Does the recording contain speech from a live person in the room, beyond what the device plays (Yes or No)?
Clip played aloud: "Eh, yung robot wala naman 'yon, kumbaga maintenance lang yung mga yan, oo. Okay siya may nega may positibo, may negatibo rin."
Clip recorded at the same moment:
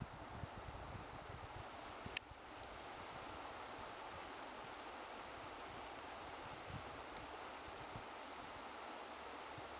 No